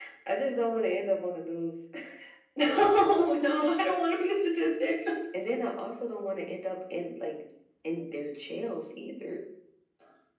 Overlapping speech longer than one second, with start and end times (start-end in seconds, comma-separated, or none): none